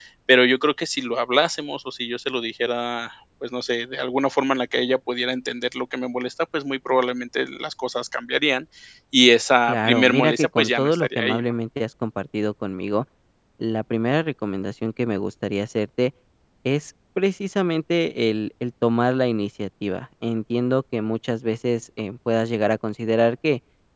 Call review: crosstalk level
present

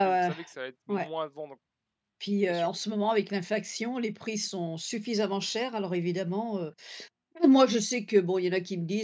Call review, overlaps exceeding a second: none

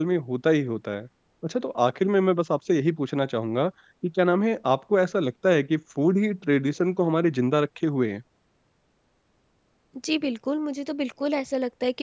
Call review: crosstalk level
none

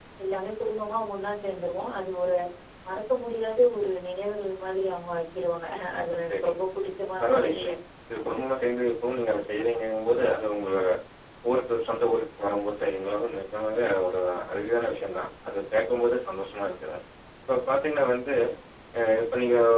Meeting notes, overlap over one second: none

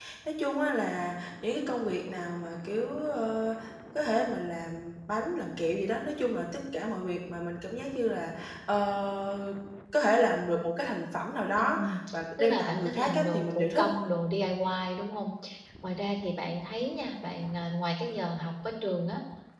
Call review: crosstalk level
present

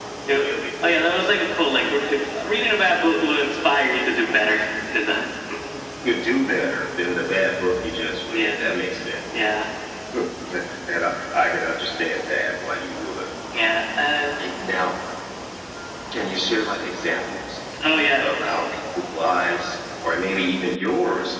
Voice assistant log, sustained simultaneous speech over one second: none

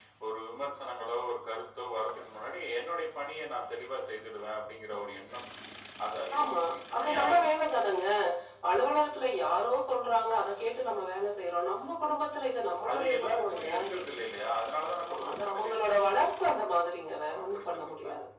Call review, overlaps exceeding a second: present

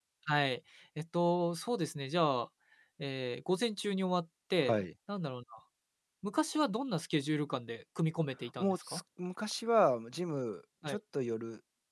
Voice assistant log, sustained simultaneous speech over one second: none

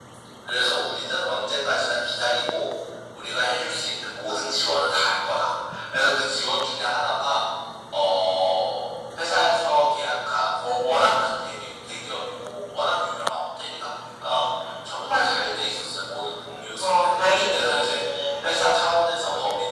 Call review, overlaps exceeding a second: present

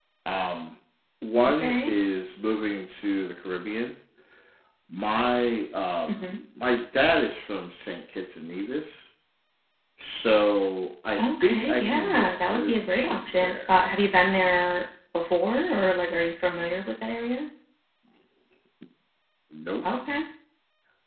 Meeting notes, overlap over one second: present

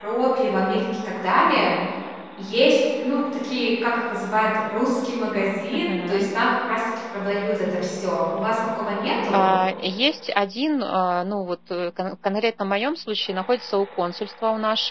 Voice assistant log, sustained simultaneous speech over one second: none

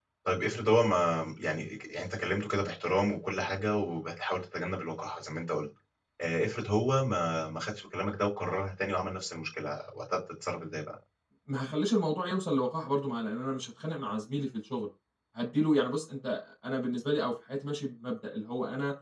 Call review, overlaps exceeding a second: none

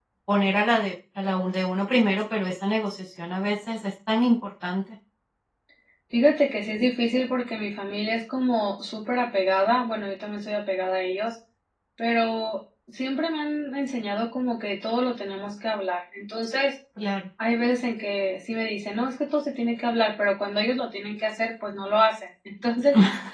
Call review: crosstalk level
none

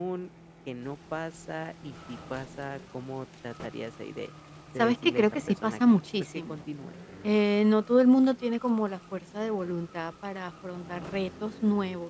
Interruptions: present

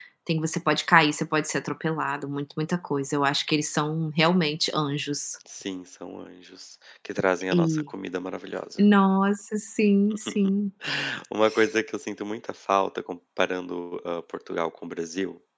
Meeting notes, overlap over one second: none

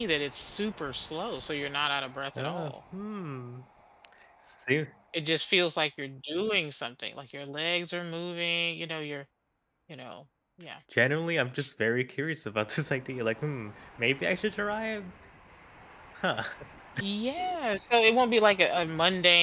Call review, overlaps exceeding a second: none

